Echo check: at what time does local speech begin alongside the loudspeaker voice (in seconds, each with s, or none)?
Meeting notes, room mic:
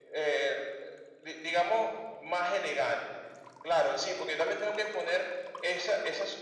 none